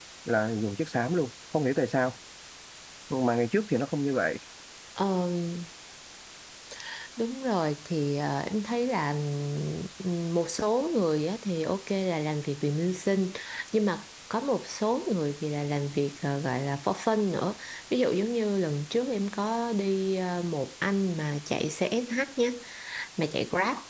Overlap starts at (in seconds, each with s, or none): none